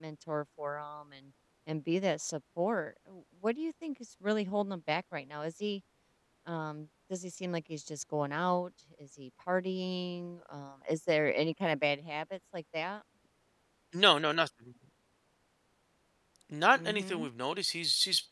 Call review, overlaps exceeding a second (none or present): none